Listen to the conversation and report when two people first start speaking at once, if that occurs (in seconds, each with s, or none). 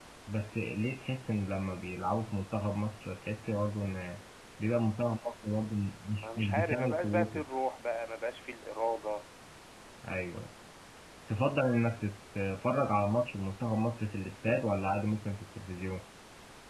6.1 s